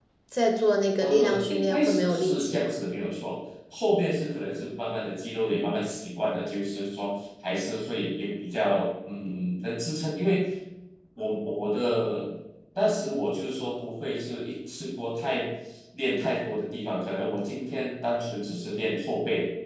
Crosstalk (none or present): present